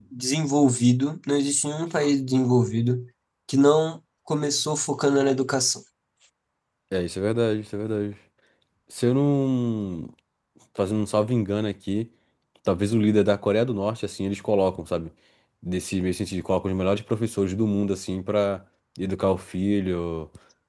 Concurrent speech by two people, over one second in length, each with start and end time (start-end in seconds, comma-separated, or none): none